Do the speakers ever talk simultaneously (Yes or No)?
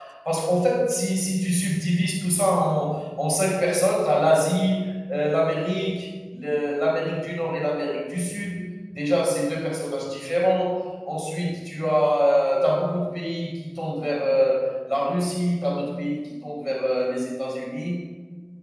No